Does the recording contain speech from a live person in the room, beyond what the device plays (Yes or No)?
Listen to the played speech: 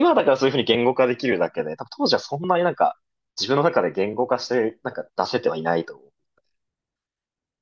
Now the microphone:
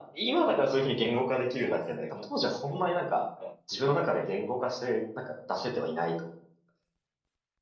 Yes